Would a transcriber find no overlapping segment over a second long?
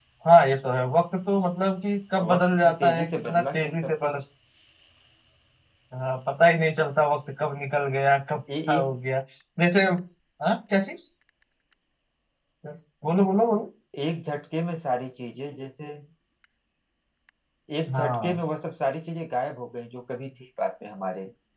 No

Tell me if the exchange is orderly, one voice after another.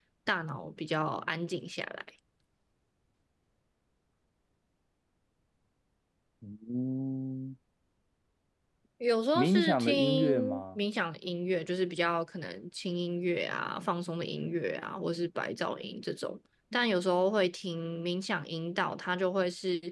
No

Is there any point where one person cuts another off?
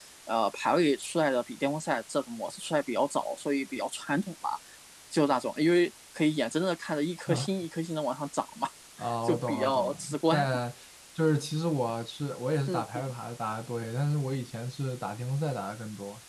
Yes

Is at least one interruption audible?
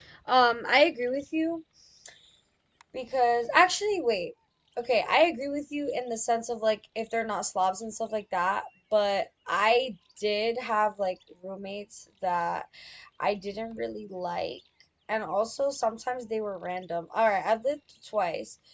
No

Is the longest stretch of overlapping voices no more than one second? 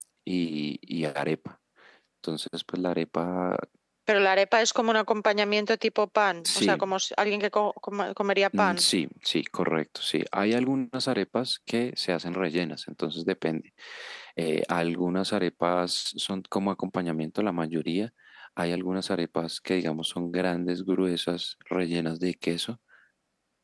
Yes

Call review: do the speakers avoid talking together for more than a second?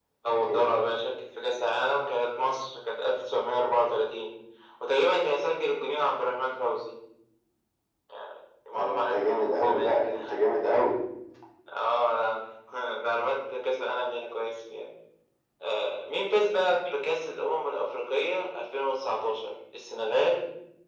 No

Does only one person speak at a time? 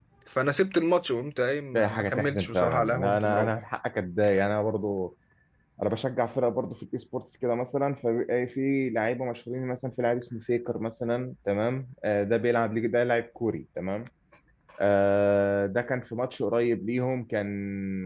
No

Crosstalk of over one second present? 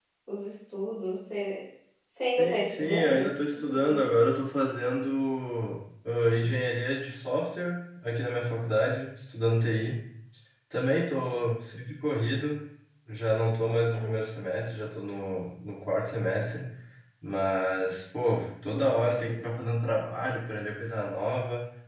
Yes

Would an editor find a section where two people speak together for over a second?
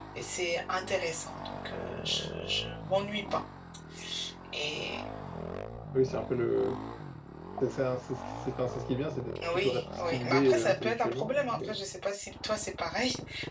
Yes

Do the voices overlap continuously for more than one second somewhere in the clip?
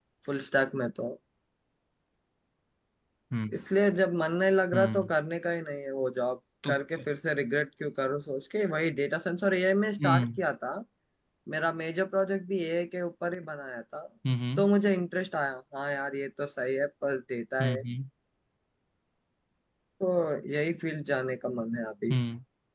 No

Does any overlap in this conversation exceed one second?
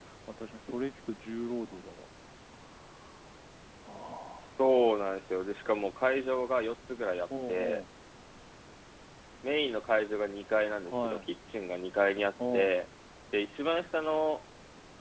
No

